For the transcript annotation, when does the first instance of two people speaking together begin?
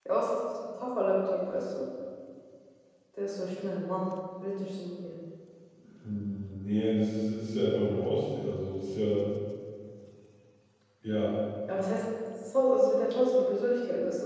none

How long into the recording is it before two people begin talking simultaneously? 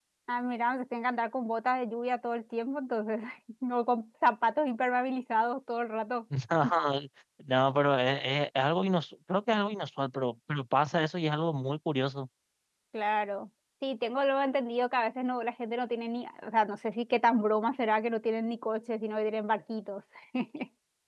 none

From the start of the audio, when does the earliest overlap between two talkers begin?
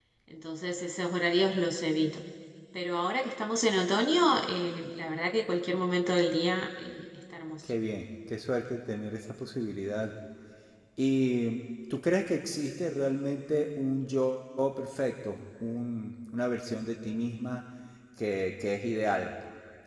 none

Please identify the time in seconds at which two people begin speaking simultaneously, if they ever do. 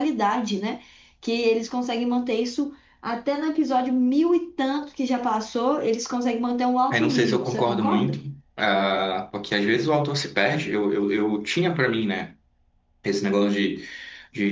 6.9 s

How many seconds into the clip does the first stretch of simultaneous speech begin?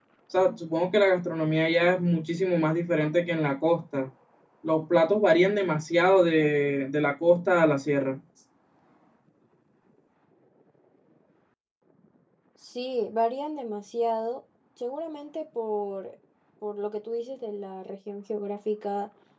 none

